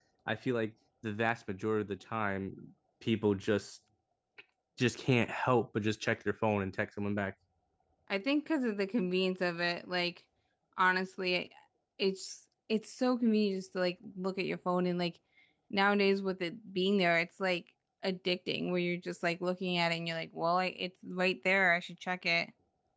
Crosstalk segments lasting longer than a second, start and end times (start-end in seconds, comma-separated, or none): none